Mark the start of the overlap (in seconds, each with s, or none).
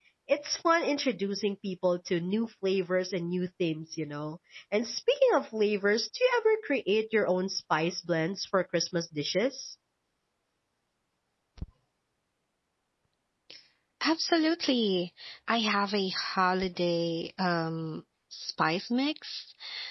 none